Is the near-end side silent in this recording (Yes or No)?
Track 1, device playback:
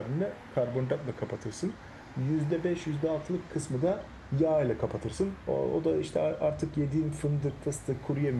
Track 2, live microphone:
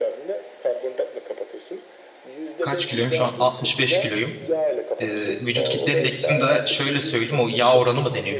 No